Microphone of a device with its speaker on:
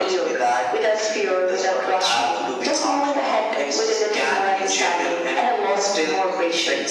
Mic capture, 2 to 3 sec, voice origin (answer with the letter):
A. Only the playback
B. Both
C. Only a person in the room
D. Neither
A